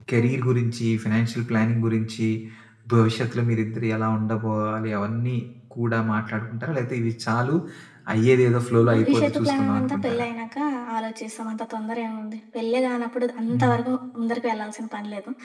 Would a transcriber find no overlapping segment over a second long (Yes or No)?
No